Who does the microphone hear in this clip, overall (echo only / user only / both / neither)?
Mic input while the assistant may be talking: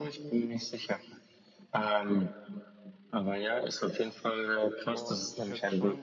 both